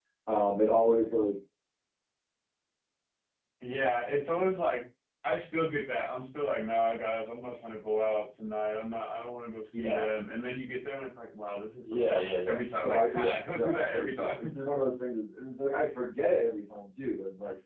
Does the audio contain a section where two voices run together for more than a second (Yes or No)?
Yes